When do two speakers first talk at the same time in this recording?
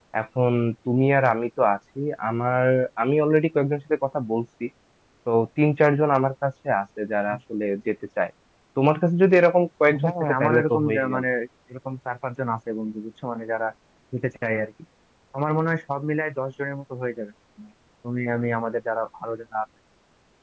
9.9 s

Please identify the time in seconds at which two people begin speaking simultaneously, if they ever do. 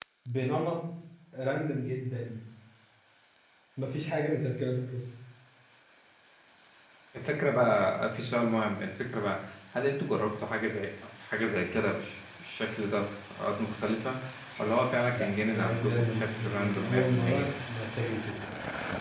15.1 s

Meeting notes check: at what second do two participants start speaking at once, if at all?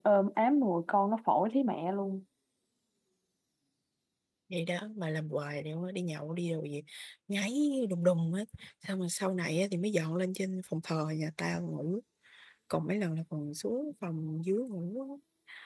none

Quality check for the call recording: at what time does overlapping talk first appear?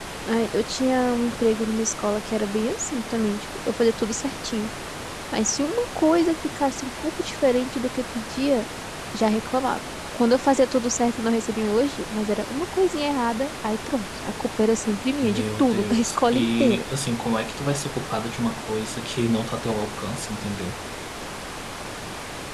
15.2 s

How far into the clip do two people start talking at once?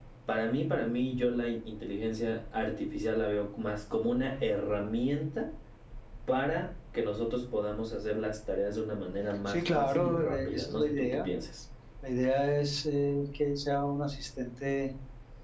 9.5 s

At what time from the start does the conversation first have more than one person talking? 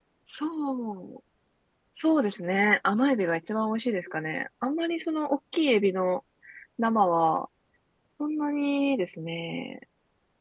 none

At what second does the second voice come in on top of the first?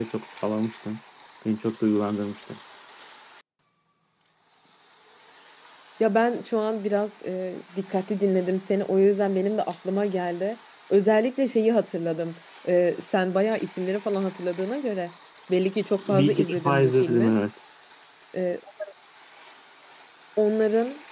16.1 s

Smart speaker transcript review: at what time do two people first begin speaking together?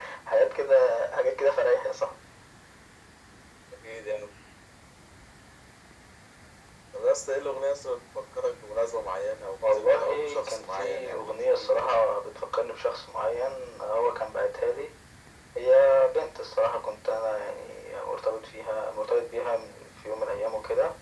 9.6 s

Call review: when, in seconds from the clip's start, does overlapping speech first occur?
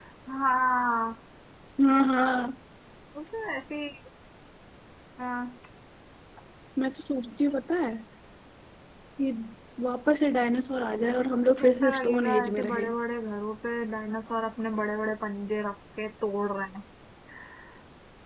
11.6 s

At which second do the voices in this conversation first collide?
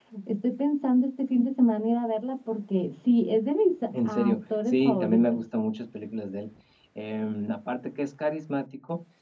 3.9 s

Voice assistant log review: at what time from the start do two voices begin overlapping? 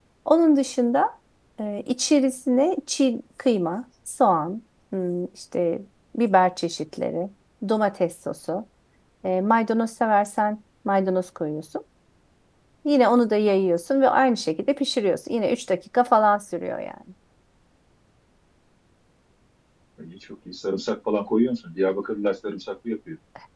none

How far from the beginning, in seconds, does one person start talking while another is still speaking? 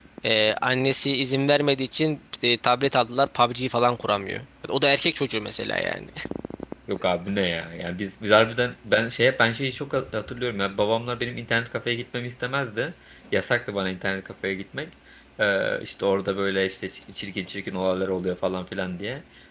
none

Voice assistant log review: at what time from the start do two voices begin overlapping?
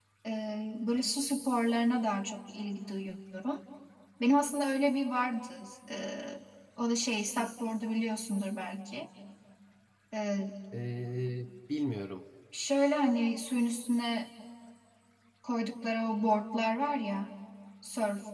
none

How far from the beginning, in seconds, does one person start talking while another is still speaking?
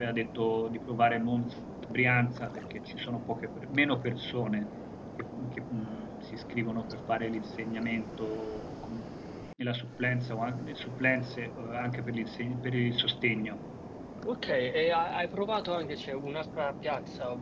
none

